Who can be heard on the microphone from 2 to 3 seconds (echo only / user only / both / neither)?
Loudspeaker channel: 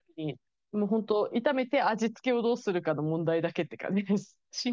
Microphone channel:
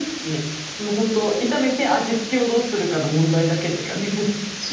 echo only